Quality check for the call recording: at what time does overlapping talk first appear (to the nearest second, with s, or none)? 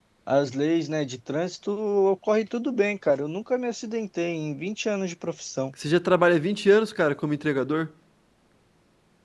none